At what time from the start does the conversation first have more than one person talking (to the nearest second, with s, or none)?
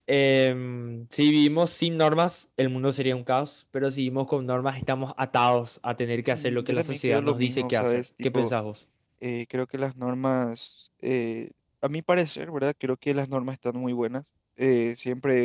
6 s